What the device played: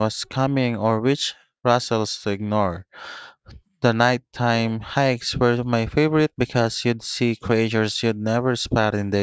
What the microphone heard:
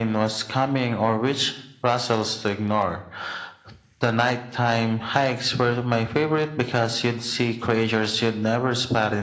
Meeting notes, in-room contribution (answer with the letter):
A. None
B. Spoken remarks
A